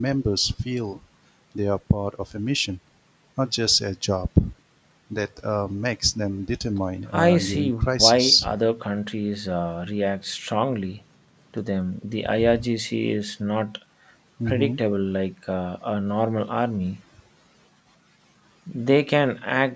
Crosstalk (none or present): present